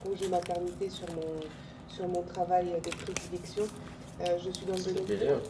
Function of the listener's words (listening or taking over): listening